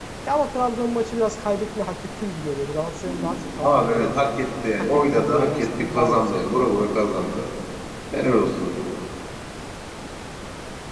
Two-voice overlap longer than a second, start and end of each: 4.8-6.7

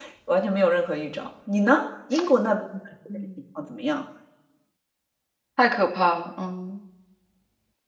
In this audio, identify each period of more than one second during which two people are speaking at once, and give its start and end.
none

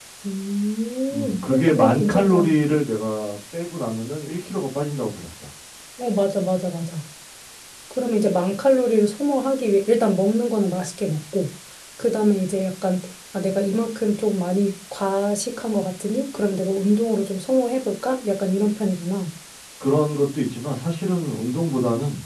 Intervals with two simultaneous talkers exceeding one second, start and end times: 1.1-2.6

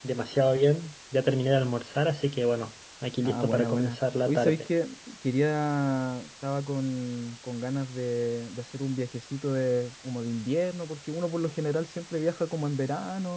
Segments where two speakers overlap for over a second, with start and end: 3.2-4.7

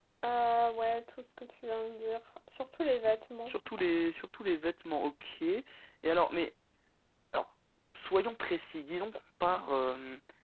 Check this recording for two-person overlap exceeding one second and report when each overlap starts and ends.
none

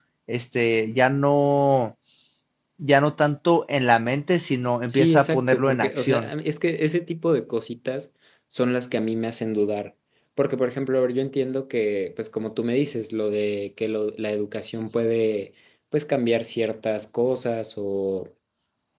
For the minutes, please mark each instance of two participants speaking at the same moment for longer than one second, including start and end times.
4.9-6.3

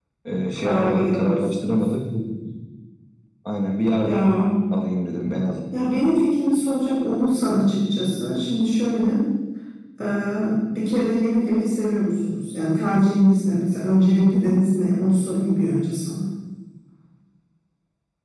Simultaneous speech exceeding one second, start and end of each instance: 0.5-1.8

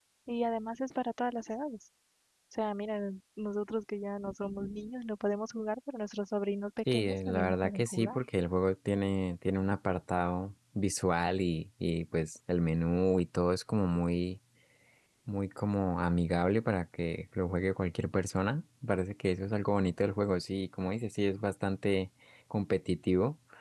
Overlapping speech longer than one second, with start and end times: 6.9-8.2

